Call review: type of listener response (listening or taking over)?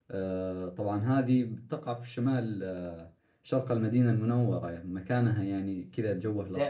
taking over